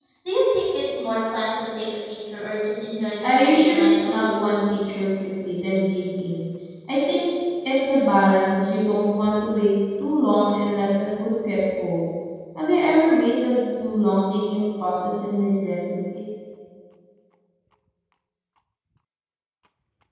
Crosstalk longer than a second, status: present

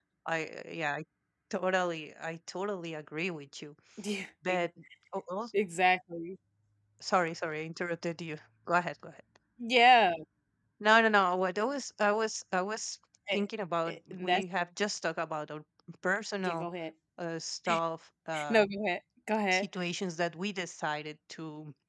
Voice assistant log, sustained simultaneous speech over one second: none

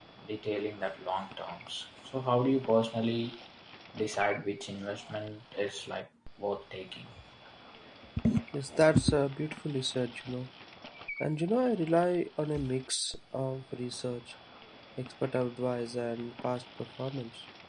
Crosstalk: none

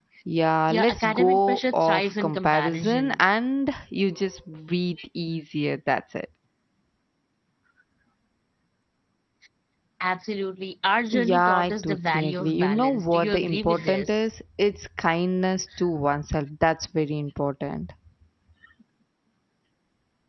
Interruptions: present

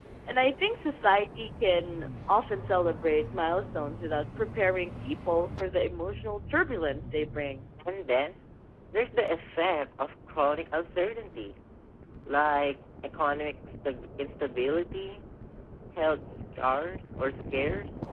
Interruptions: none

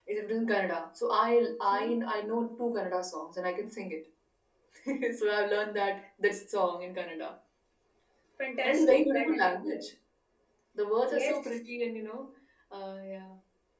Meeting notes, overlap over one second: present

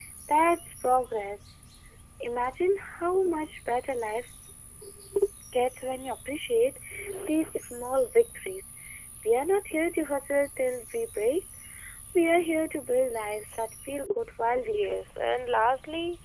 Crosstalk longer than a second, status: none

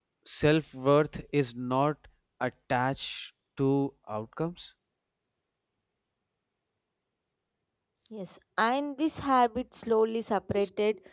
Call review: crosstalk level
none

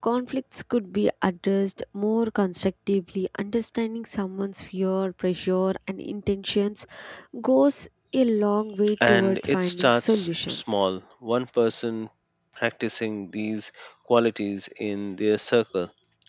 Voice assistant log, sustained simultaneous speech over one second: present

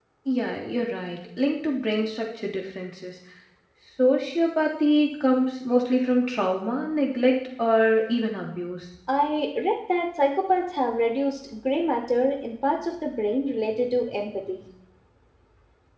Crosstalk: none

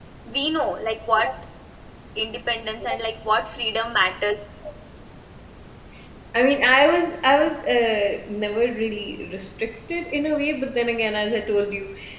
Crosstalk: none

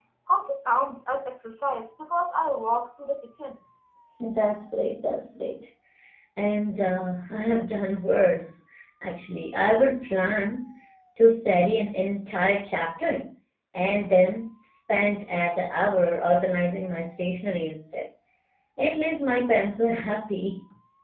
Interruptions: none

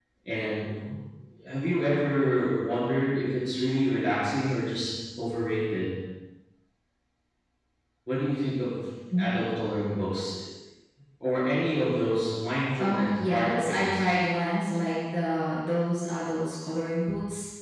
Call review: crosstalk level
present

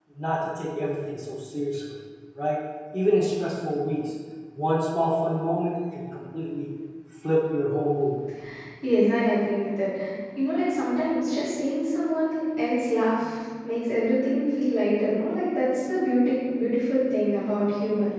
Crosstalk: none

